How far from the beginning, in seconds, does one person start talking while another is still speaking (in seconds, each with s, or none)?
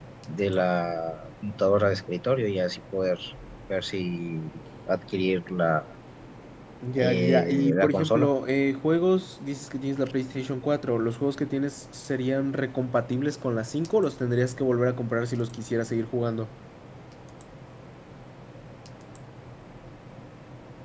7.0 s